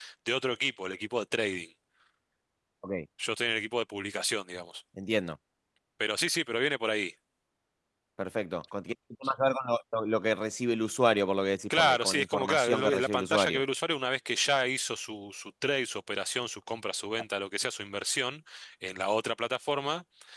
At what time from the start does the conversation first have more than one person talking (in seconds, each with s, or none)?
11.7 s